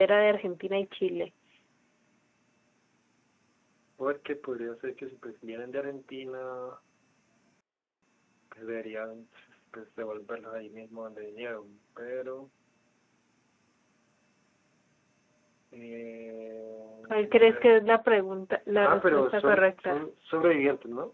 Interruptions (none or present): present